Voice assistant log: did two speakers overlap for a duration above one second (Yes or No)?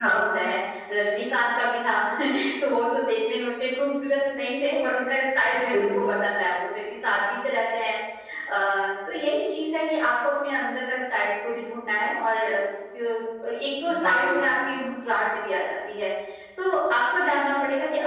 No